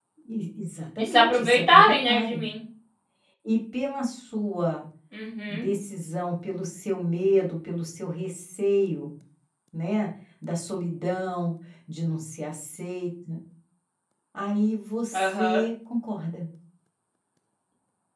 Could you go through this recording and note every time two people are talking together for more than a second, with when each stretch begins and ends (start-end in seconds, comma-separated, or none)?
1.0-2.4